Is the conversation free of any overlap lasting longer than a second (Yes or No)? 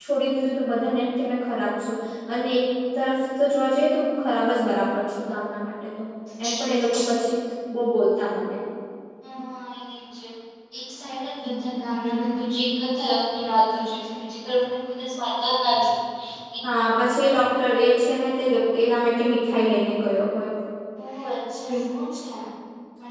Yes